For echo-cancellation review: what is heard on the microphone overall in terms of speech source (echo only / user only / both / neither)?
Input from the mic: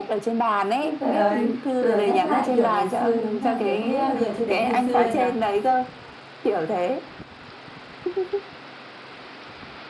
both